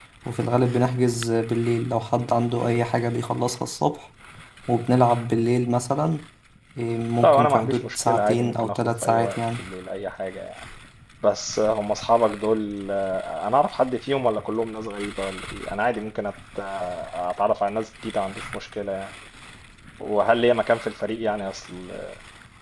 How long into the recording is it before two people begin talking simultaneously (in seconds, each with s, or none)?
7.2 s